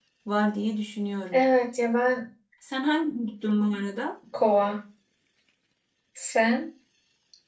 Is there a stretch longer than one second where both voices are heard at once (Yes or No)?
No